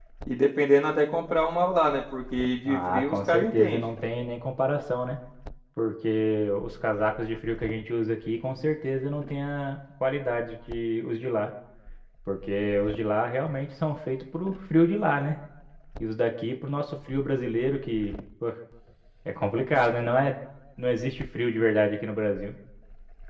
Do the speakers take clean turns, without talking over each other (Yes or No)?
No